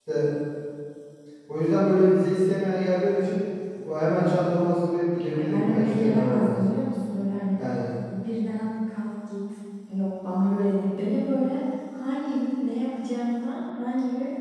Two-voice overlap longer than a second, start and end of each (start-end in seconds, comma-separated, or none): 5.3-6.6